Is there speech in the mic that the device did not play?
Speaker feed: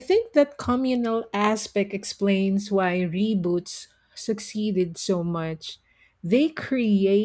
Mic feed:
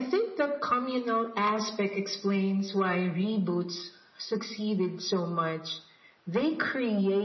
No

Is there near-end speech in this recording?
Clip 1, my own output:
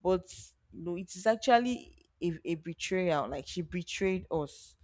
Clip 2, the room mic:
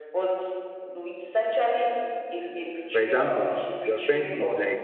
Yes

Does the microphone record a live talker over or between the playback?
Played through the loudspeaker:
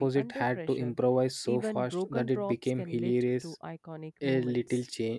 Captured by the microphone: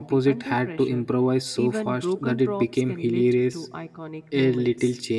No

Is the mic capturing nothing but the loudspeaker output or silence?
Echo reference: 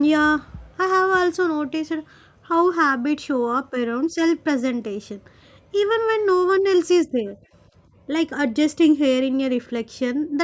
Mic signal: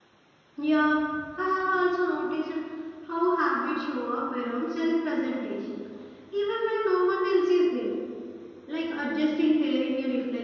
Yes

